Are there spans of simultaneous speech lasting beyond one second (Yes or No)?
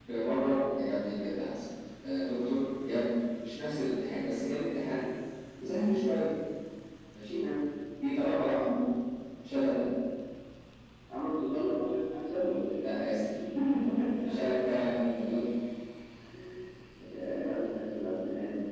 No